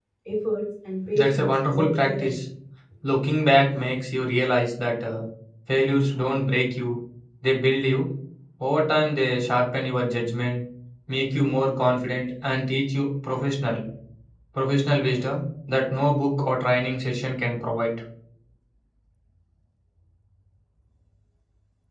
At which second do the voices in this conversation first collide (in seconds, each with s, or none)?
1.1 s